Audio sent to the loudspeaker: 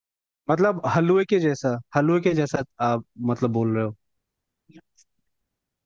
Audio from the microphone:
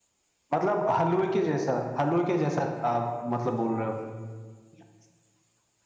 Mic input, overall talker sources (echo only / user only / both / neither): echo only